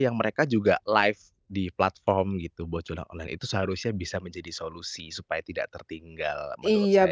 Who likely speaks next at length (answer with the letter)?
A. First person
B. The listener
B